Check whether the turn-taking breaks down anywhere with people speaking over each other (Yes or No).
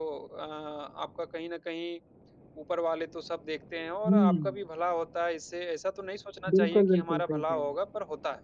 Yes